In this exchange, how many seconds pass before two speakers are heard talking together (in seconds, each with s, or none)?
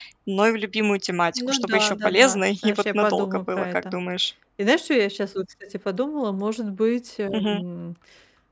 1.4 s